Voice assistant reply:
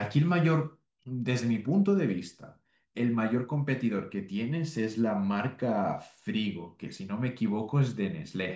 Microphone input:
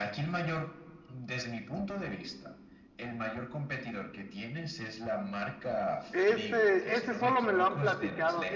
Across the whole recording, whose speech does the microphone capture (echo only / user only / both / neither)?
both